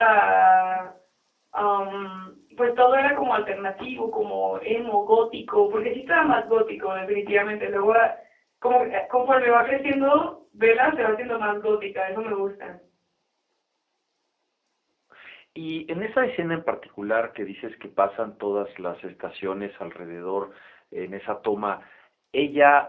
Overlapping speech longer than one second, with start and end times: none

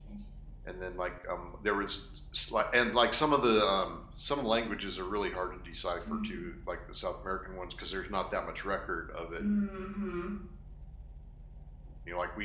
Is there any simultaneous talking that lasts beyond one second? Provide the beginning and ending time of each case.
none

